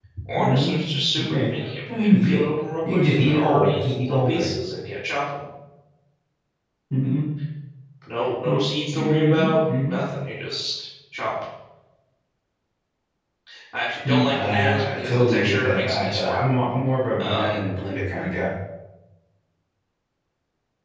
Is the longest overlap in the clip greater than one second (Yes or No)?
Yes